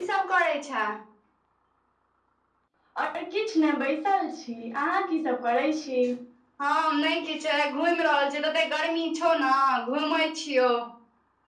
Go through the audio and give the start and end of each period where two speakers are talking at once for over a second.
none

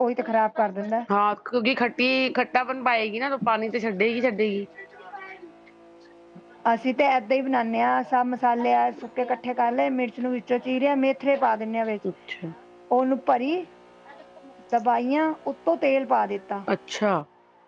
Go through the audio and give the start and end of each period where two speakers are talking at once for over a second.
none

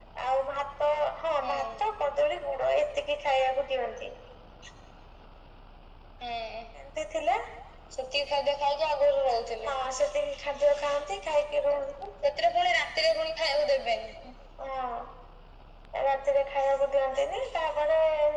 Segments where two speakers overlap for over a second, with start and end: none

